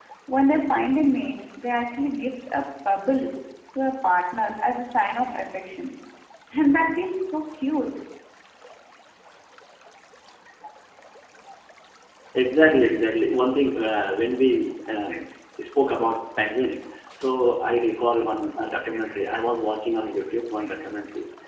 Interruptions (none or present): none